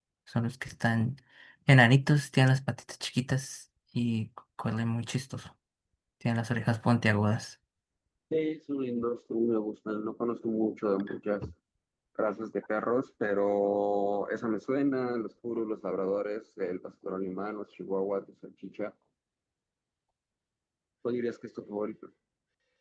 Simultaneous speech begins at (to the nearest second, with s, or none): none